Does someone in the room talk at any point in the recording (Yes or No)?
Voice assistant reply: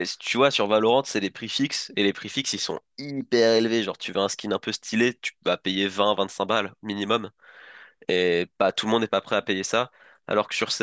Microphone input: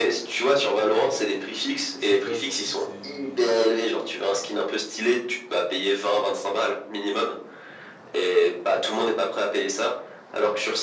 Yes